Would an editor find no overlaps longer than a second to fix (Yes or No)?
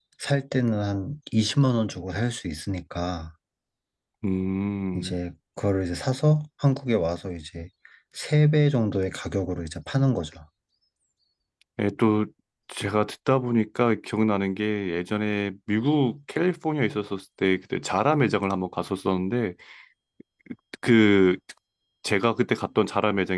Yes